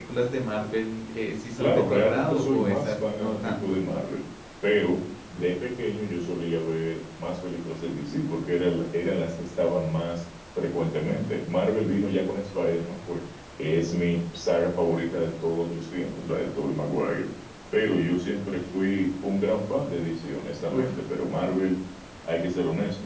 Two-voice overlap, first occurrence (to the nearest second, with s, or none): 2 s